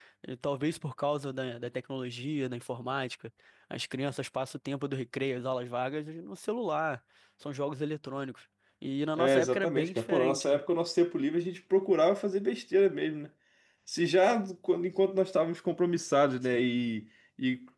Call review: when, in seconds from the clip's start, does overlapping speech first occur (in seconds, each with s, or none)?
9.2 s